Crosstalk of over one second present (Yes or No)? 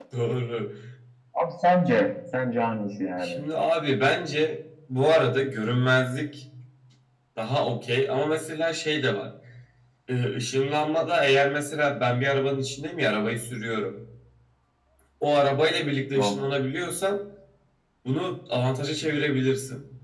No